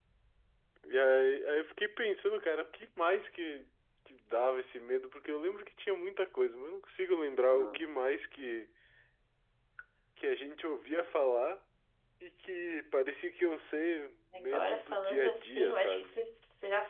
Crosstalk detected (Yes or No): Yes